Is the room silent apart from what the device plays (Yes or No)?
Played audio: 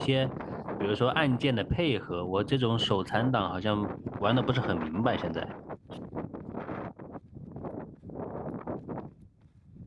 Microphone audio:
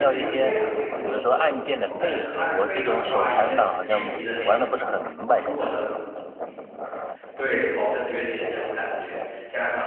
No